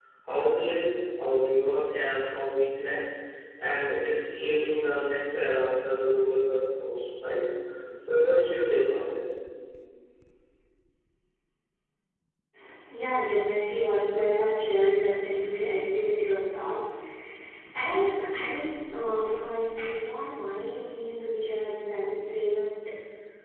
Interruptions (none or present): none